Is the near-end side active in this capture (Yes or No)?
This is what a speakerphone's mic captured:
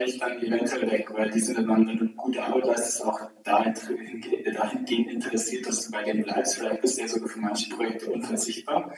No